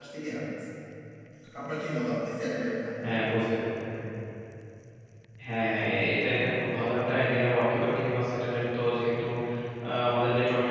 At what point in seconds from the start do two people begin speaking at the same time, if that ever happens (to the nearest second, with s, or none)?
none